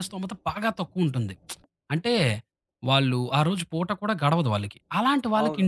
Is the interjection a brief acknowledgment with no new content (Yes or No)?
Yes